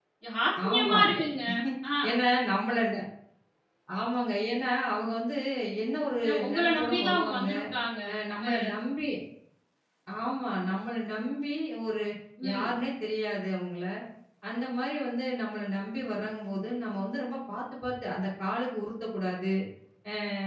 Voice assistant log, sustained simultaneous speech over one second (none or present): present